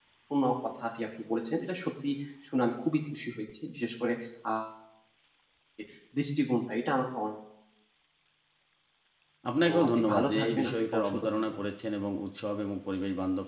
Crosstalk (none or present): present